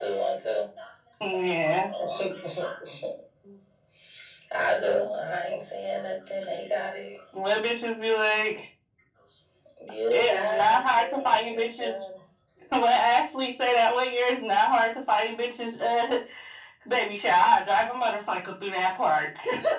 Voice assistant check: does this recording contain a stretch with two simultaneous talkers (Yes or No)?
Yes